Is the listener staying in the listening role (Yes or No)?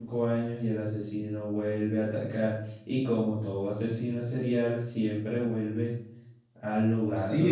No